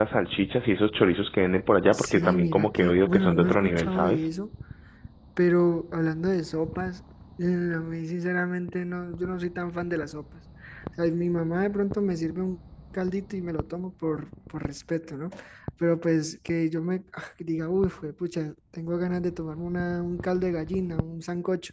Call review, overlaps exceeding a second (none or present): present